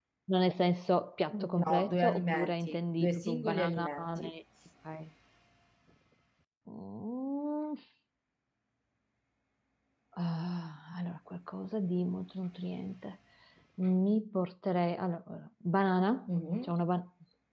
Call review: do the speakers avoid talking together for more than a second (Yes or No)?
No